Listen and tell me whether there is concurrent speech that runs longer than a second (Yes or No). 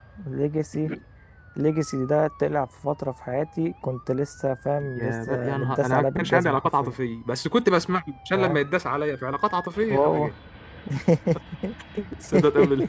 Yes